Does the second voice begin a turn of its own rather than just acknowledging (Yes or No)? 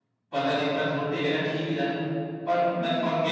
No